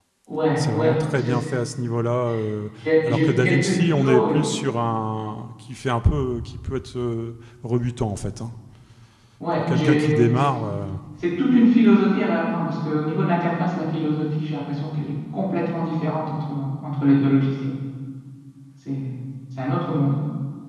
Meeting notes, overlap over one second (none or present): present